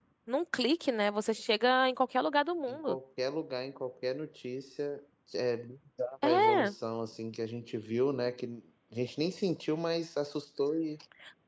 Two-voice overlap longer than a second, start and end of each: none

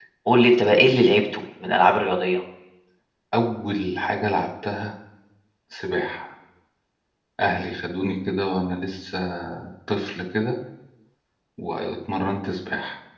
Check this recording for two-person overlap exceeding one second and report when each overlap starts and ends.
none

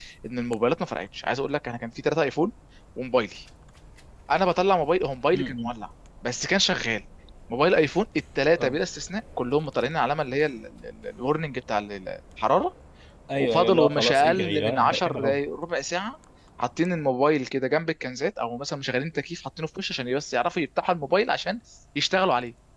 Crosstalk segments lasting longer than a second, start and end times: 13.4-15.4

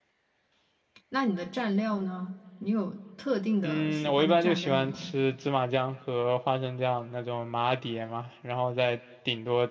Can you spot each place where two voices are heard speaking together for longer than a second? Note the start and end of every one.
3.6-5.0

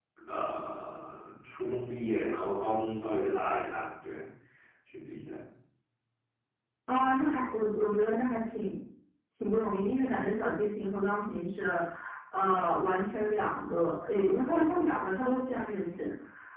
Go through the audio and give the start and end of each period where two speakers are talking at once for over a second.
none

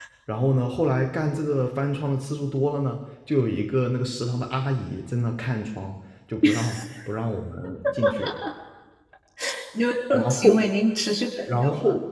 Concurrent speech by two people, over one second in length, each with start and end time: none

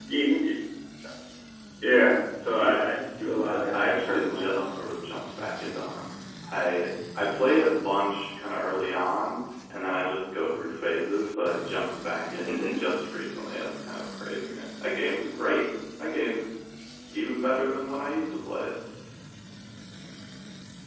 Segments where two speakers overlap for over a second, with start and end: 3.4-4.7

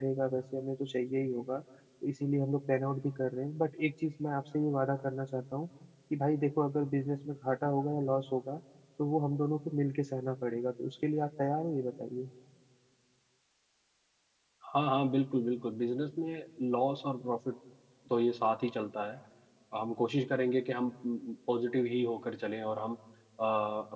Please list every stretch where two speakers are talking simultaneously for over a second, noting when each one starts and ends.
none

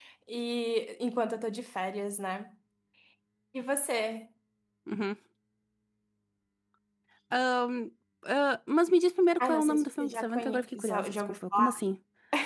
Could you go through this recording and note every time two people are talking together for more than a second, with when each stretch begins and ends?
9.4-11.8

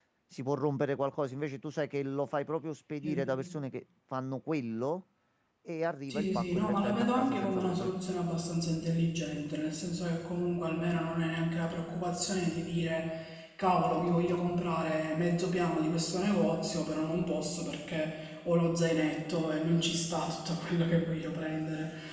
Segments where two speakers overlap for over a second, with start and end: 6.1-7.9

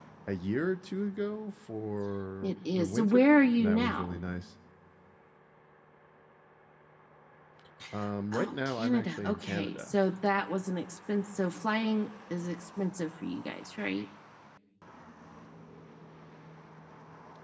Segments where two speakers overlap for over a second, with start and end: 2.4-4.2, 8.3-10.0

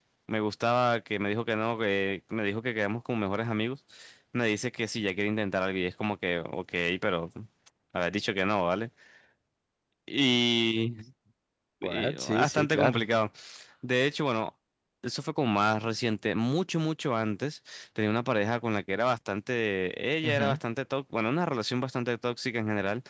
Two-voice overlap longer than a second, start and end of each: 11.8-13.0

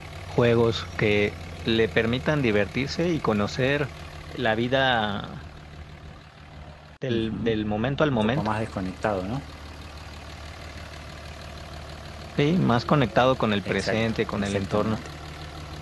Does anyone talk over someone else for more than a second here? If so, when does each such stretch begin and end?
13.7-15.0

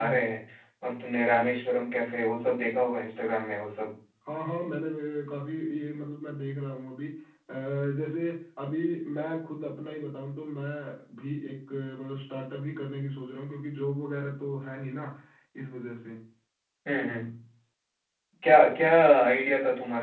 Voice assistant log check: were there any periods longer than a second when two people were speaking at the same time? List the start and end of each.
none

